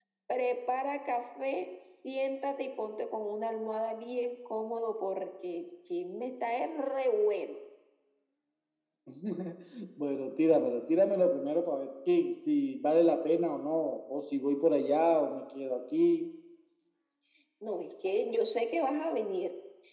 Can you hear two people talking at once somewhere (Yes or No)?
No